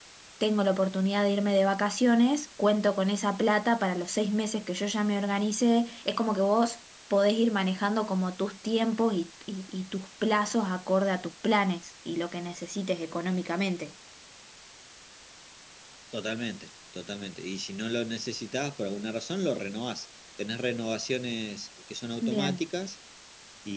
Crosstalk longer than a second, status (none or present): none